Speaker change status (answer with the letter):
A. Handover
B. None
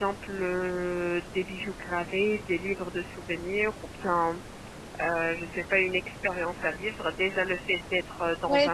A